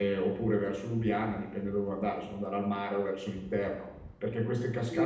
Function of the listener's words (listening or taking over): taking over